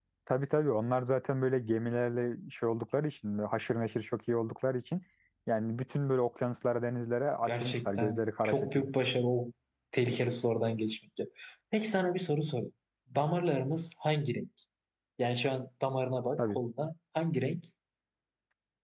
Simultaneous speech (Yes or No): Yes